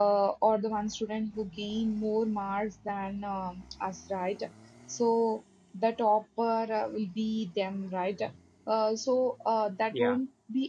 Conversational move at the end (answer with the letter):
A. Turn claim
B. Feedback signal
B